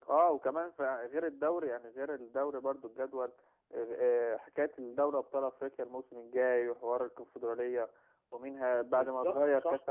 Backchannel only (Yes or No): Yes